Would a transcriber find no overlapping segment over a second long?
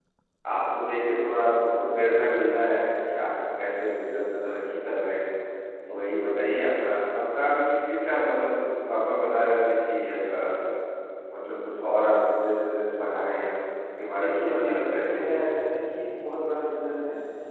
No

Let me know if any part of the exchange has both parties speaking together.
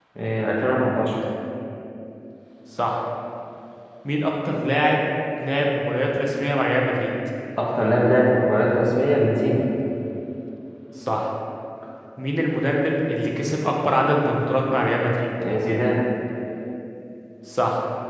No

